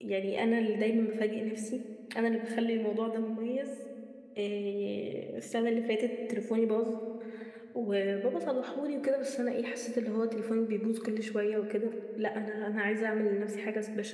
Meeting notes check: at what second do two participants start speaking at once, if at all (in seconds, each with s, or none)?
none